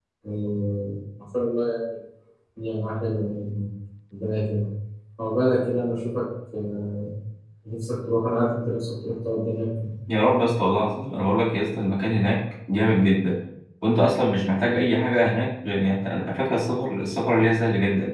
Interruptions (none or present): none